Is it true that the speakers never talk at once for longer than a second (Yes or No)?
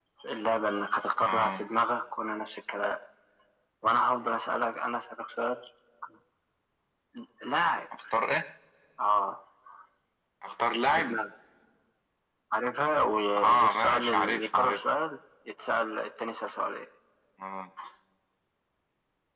No